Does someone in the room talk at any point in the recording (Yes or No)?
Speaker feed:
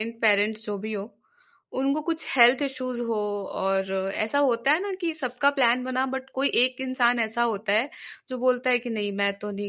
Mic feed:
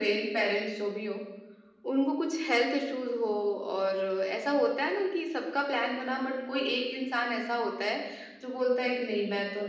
No